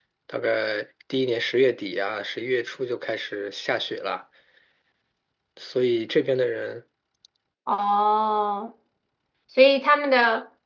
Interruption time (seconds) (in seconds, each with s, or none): none